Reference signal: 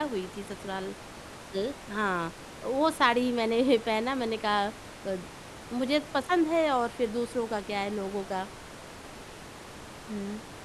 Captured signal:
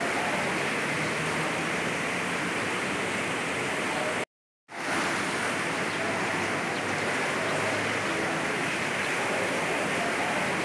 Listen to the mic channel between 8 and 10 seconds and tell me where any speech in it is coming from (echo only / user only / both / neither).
neither